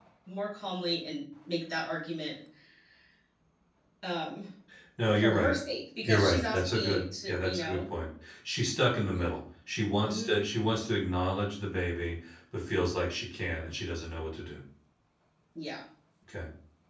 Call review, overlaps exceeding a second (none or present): present